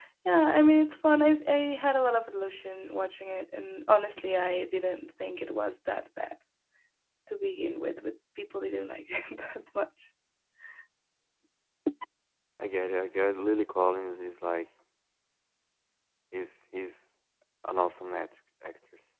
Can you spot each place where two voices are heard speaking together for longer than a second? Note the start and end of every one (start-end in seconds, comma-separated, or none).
none